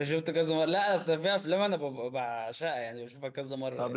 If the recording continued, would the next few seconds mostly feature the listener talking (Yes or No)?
Yes